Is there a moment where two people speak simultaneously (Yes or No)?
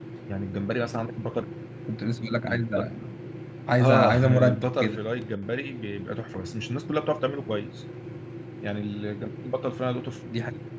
Yes